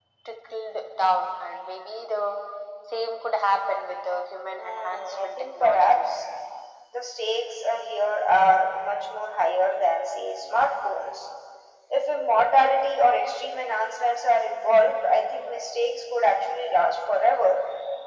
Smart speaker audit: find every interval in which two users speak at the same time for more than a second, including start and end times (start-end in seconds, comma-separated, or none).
4.6-6.2